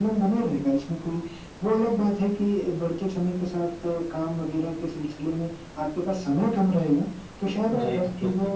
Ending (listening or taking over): listening